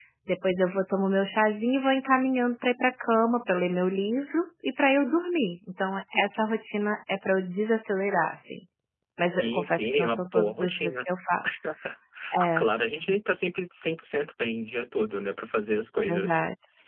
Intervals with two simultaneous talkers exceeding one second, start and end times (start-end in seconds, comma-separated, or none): 9.3-11.0